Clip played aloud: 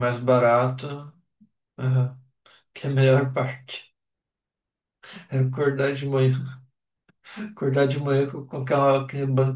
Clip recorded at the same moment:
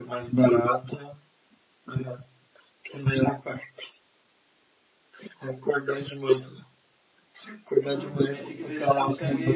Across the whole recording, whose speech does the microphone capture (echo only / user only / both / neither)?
both